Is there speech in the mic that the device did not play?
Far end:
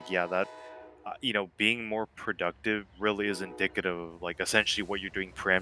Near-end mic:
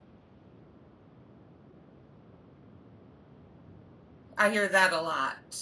Yes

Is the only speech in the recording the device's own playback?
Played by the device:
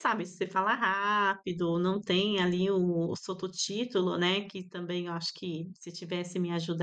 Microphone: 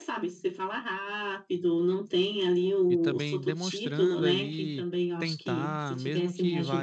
No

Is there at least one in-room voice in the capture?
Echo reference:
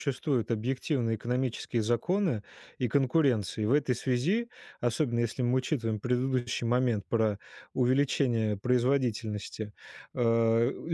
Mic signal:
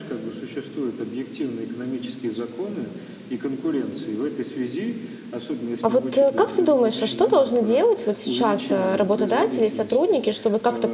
Yes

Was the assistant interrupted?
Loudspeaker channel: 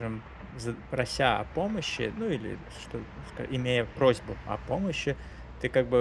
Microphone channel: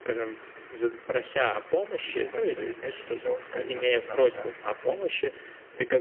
Yes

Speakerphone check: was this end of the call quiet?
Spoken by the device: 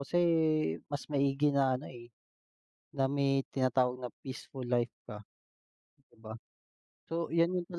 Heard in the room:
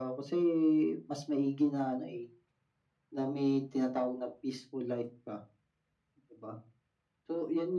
Yes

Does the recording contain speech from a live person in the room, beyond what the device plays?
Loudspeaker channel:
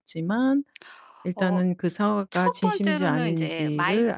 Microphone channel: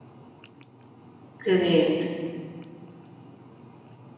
Yes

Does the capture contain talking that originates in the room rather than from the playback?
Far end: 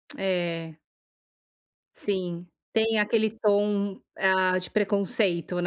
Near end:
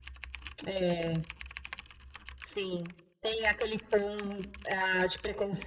No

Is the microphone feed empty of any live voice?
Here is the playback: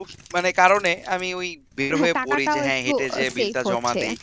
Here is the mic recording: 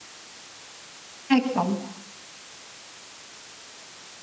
No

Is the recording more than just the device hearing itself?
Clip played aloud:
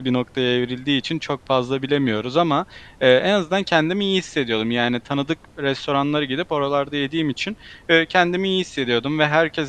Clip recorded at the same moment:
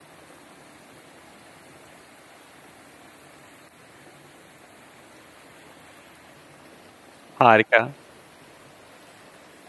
Yes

